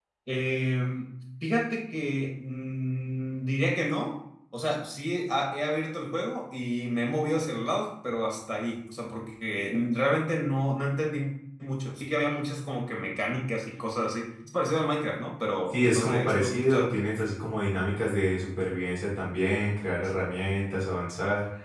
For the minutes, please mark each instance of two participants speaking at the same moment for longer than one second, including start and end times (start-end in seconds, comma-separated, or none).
15.7-16.9